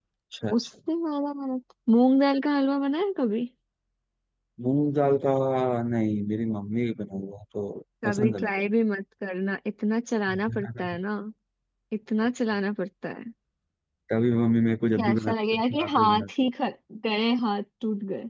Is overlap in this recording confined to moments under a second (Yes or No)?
No